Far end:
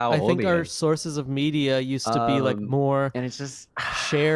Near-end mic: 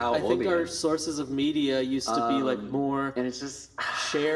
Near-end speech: none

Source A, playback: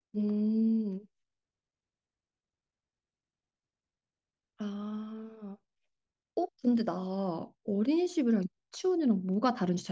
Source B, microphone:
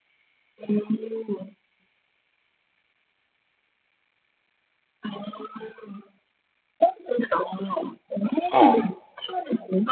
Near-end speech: present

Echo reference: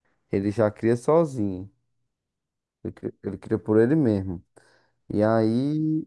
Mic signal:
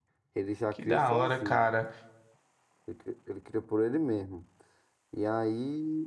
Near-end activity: present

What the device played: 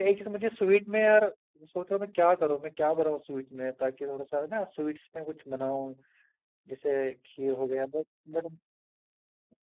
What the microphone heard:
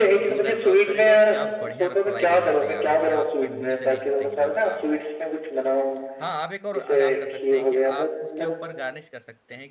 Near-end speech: present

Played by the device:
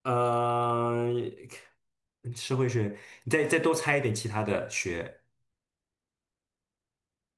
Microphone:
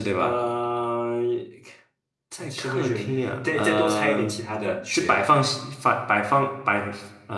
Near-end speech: present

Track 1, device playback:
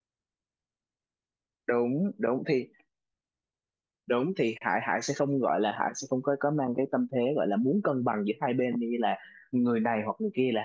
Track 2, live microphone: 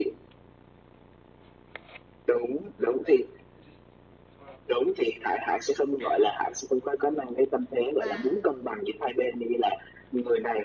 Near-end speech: present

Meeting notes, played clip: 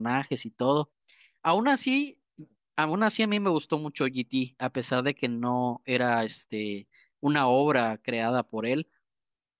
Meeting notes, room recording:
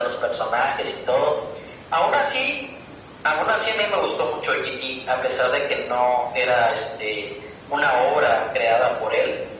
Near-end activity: none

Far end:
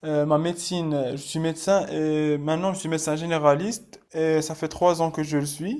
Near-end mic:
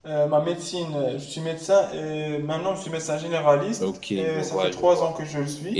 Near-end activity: present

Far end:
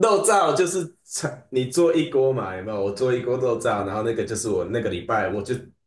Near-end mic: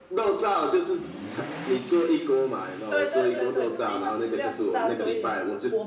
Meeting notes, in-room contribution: present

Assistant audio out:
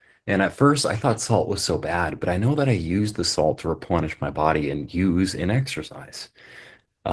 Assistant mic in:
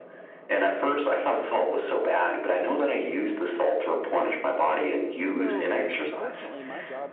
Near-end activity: present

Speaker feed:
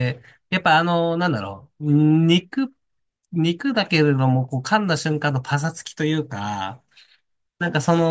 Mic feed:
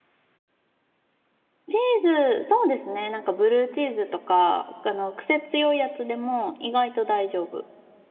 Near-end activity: present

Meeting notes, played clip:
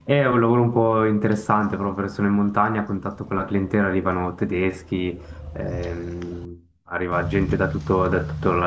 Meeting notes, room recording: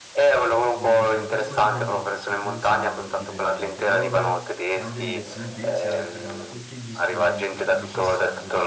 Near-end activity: present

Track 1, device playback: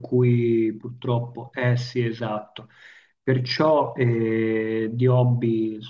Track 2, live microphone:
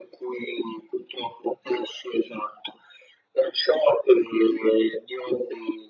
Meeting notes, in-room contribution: none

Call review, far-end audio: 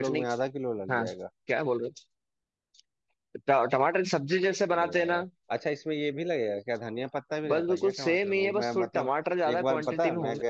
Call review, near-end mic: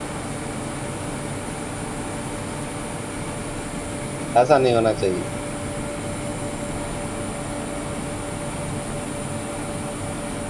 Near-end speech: present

